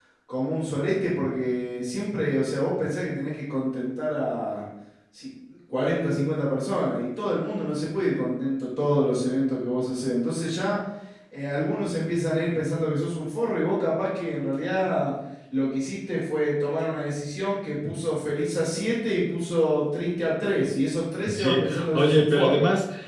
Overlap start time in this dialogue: 21.3 s

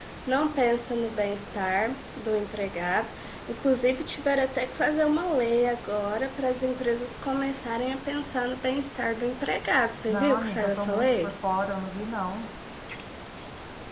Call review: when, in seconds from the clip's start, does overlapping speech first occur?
10.1 s

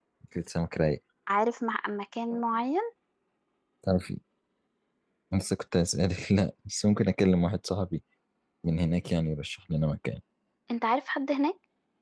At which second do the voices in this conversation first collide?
none

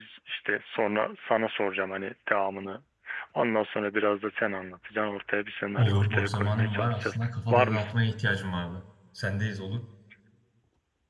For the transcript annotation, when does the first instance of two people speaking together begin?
5.8 s

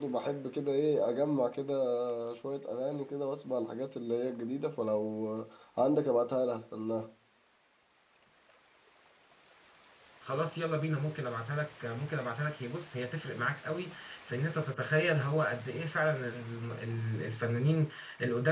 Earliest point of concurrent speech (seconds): none

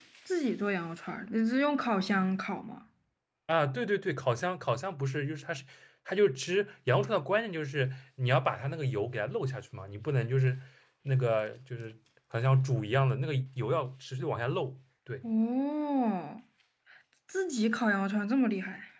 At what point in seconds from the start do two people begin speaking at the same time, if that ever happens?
none

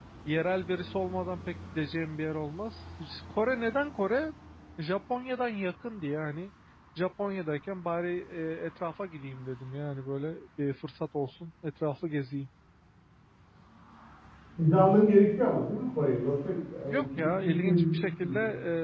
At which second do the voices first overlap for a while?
16.9 s

